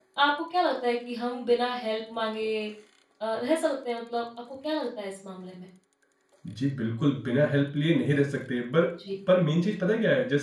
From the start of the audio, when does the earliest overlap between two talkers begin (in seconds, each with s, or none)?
none